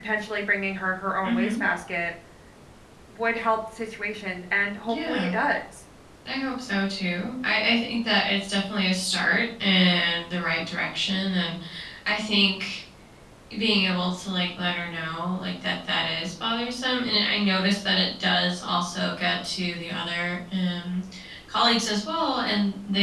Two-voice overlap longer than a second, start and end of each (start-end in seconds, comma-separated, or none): none